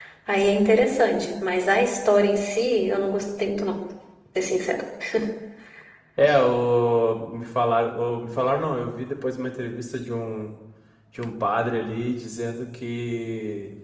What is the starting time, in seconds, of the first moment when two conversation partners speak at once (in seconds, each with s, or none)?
none